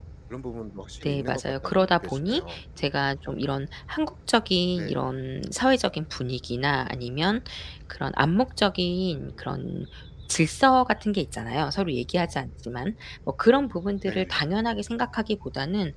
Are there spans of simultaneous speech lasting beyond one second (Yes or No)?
Yes